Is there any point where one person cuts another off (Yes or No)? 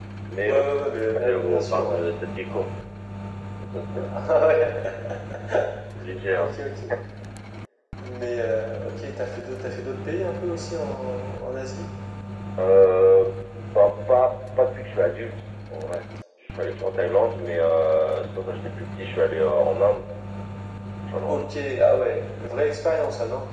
Yes